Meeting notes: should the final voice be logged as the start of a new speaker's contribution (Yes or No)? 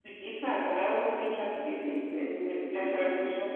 Yes